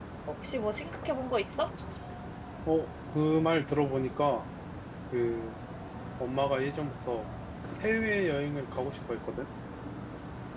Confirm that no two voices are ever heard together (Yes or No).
Yes